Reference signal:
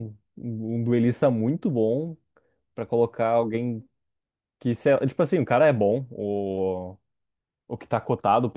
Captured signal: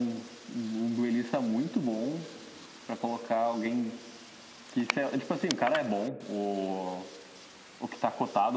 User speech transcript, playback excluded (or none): none